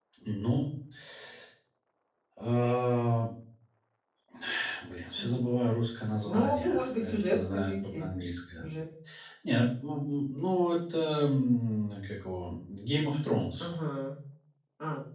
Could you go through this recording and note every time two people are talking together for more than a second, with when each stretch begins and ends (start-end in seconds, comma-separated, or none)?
6.2-8.1